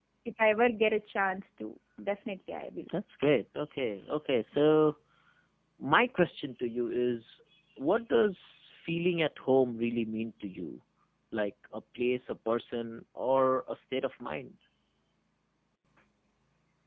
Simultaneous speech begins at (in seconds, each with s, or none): none